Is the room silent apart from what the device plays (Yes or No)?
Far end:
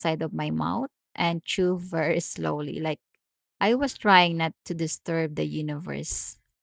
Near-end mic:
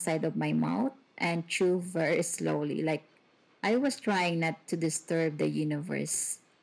Yes